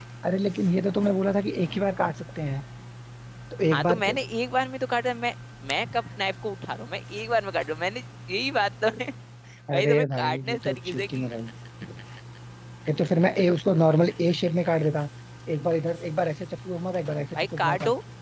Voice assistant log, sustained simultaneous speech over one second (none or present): present